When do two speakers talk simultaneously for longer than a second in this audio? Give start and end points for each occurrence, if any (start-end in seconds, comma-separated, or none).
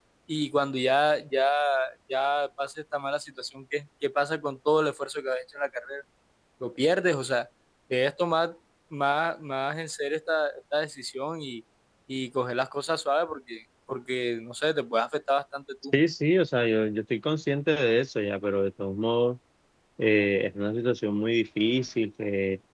none